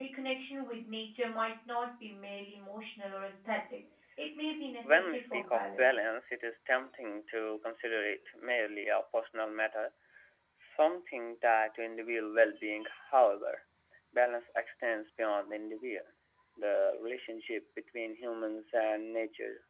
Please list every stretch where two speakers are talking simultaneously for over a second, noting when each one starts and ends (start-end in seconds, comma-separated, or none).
4.8-6.0